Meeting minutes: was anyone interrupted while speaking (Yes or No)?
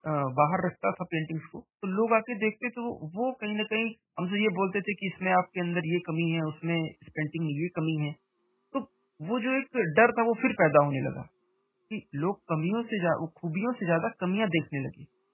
No